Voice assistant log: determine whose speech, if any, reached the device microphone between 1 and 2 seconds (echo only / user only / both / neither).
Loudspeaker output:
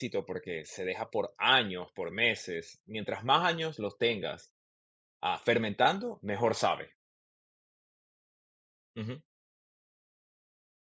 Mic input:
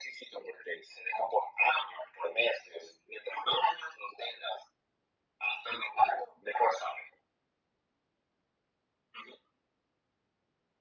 echo only